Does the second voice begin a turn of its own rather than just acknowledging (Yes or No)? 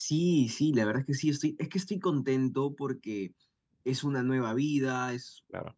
No